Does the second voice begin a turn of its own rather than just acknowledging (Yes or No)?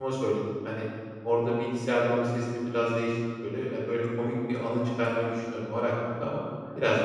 Yes